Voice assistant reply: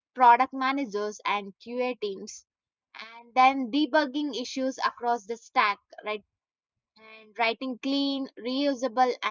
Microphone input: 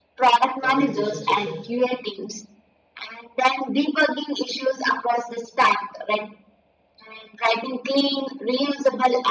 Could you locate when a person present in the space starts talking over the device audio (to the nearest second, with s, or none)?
1 s